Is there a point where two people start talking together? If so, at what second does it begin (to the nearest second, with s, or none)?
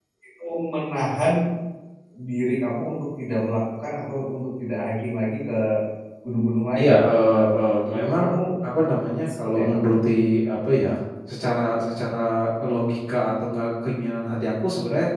7 s